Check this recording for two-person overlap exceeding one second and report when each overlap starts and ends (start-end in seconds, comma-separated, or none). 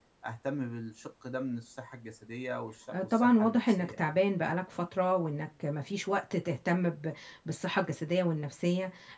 2.9-4.2